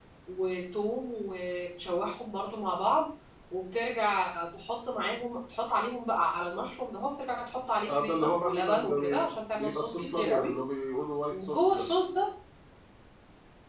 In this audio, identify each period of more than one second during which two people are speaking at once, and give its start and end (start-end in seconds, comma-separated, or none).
7.9-10.6